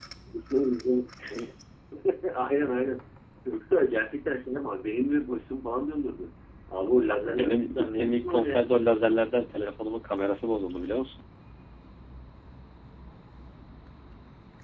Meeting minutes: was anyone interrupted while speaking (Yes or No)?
Yes